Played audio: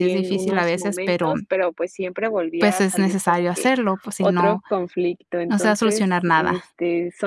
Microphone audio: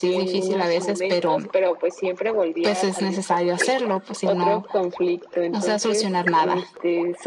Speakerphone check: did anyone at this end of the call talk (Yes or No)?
No